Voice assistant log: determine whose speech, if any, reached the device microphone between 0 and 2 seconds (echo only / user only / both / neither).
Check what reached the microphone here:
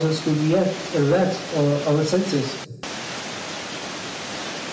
echo only